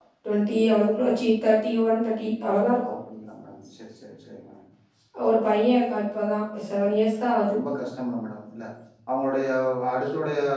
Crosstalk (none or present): none